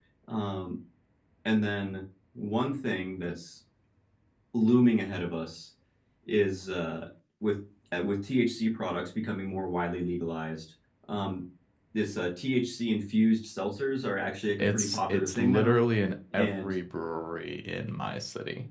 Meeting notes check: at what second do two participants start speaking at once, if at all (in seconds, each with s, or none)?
14.6 s